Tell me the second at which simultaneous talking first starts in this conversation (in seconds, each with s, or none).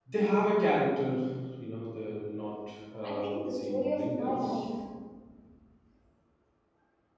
2.9 s